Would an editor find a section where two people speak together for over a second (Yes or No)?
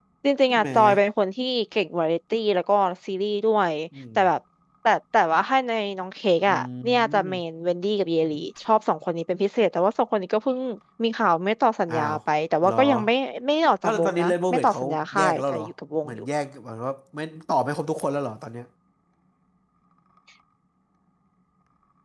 Yes